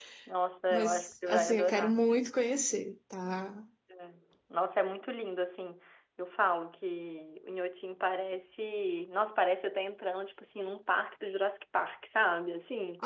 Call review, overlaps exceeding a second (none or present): present